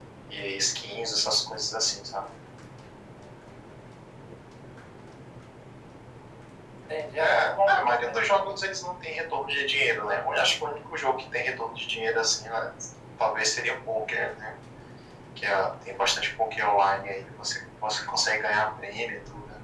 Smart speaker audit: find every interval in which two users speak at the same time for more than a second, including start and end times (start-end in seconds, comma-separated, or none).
7.2-8.6